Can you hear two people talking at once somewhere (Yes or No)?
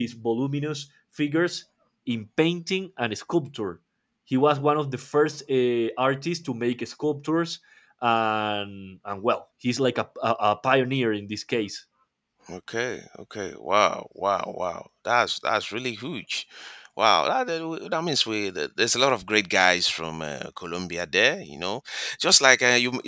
No